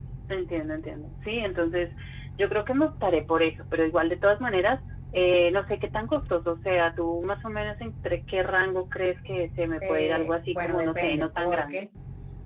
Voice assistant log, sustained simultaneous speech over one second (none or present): present